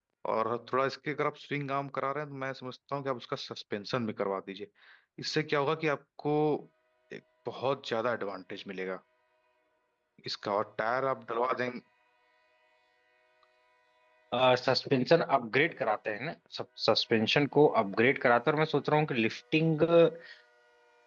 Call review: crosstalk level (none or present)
none